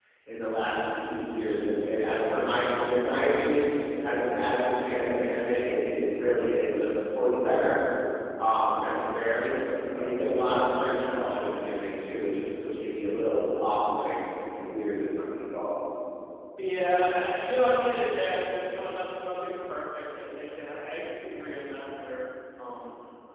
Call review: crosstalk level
none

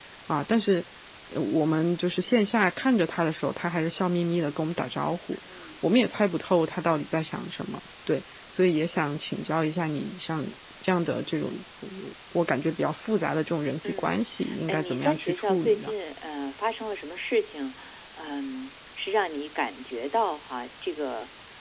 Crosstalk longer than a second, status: present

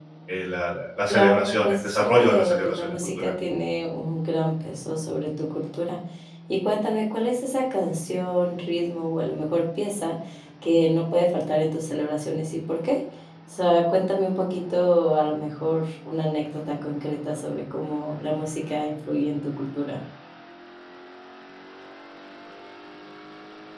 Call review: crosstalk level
present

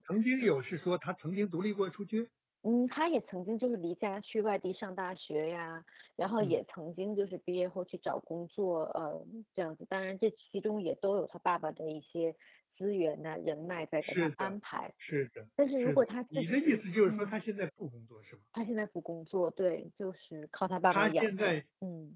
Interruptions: present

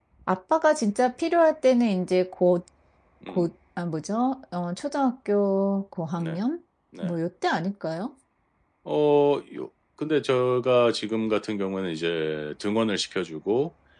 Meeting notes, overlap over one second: none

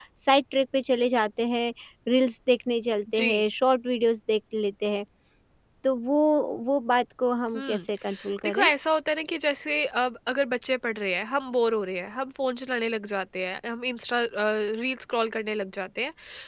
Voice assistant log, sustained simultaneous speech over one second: none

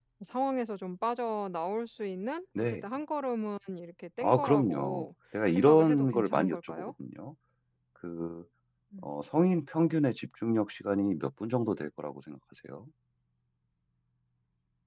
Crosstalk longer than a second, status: present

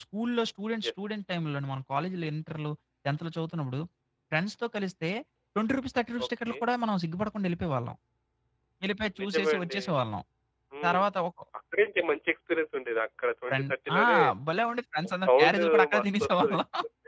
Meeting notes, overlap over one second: present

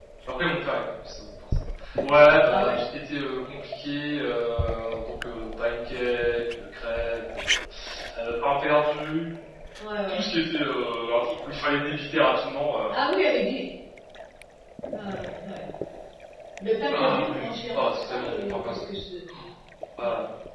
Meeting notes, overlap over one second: present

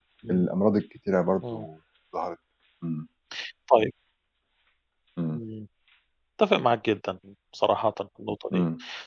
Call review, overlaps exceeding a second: none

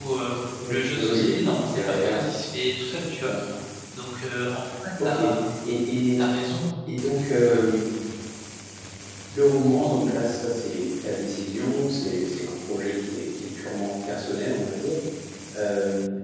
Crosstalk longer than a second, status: present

